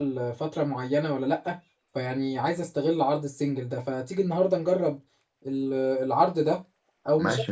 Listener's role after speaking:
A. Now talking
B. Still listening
B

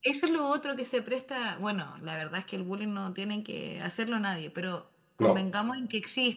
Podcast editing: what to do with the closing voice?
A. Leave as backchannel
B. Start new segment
A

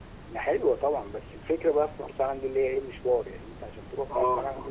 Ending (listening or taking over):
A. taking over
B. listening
A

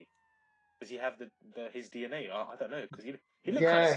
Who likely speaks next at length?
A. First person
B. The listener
B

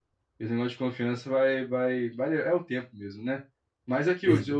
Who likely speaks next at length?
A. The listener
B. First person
B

